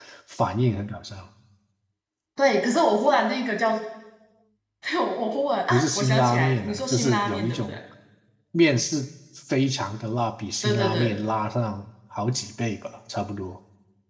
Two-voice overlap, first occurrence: 6 s

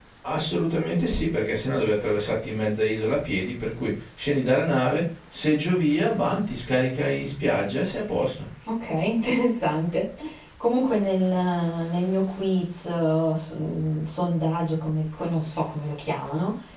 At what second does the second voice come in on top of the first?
none

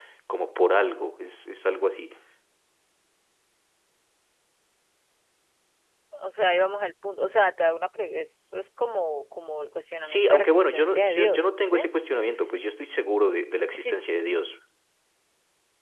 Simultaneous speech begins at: 10 s

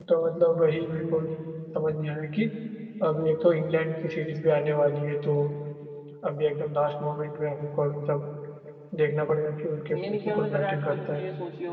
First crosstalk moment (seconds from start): 10 s

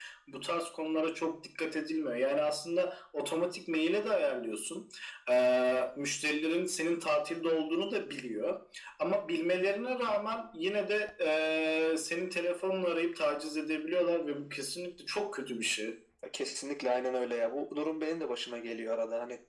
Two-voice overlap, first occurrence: none

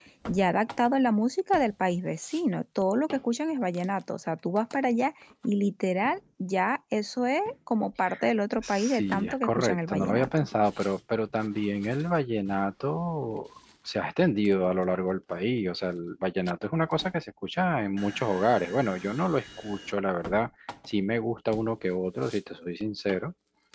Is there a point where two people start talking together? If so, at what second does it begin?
9 s

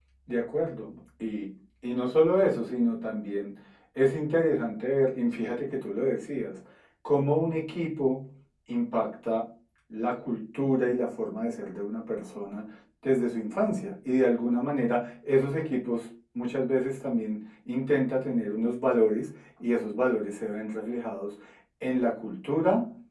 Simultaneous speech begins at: none

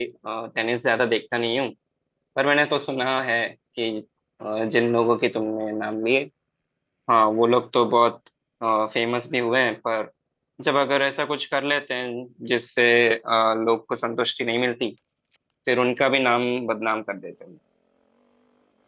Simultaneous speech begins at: none

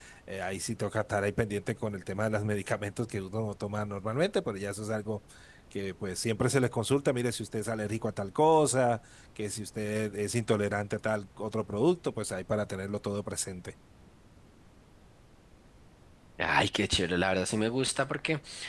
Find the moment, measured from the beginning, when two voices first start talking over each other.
none

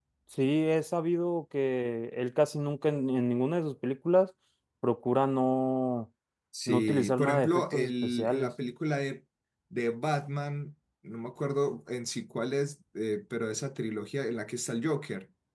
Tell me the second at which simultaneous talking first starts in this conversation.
7 s

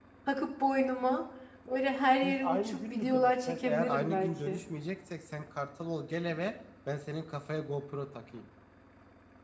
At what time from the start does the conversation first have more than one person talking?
2 s

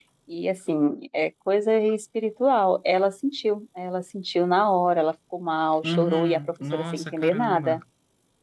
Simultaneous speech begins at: 6 s

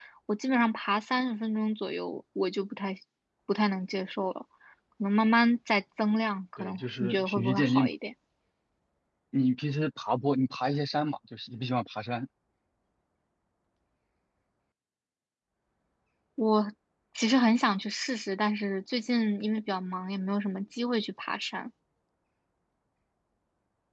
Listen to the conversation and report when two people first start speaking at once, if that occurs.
7 s

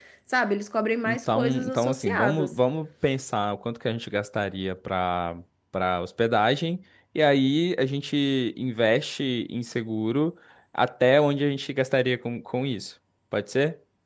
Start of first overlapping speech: 1 s

